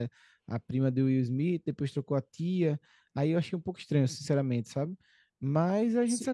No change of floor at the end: Yes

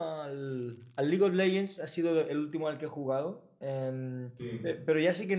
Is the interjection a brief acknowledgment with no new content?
Yes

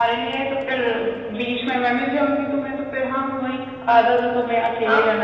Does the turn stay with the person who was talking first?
No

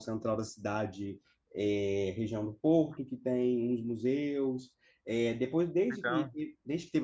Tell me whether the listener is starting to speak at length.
No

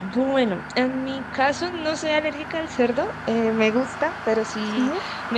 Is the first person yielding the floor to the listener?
No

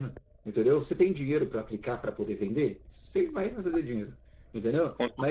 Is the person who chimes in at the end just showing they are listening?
Yes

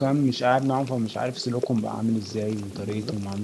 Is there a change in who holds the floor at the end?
No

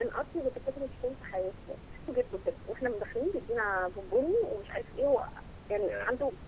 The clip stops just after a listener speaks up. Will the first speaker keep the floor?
Yes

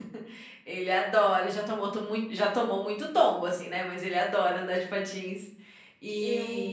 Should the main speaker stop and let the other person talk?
No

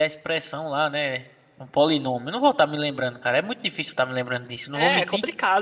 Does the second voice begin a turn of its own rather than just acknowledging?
Yes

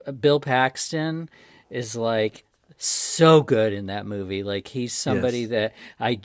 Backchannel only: Yes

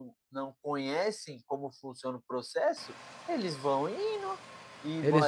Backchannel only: Yes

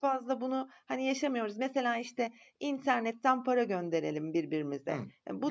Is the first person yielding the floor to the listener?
No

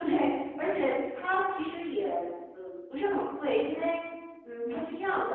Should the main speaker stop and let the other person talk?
No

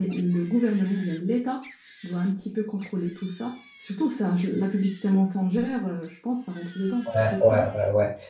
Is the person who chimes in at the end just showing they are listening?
No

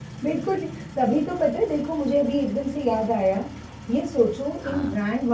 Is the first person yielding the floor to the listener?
No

